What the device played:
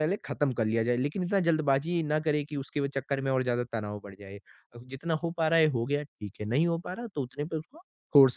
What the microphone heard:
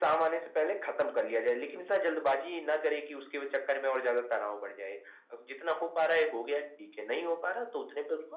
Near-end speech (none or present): none